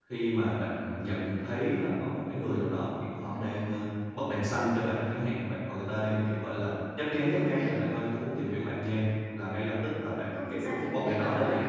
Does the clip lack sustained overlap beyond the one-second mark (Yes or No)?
No